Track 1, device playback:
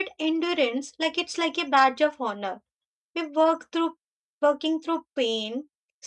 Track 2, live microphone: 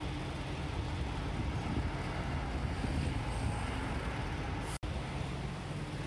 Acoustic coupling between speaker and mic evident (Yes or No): No